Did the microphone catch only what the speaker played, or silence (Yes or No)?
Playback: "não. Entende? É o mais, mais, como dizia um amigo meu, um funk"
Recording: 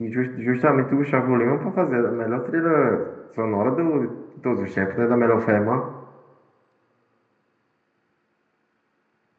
No